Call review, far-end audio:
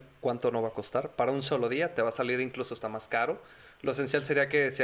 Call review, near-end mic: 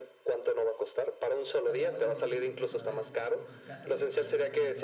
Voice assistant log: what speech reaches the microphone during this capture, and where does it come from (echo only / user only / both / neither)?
both